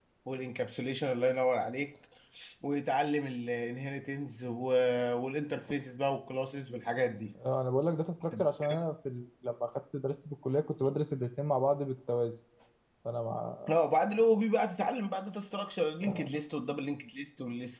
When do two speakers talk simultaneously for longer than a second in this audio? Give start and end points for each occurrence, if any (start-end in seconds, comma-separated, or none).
none